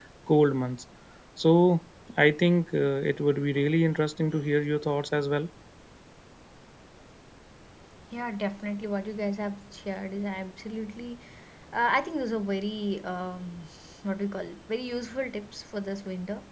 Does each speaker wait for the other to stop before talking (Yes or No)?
Yes